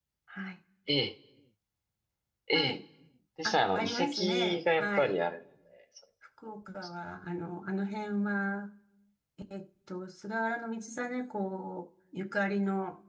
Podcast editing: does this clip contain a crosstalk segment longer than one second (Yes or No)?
Yes